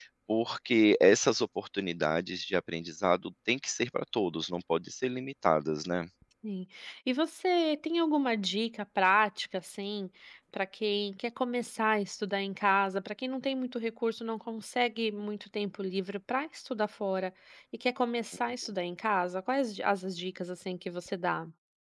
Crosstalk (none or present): none